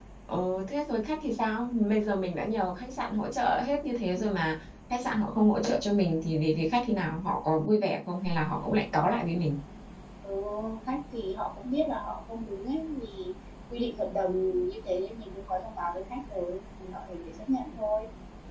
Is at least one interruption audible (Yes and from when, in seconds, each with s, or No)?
No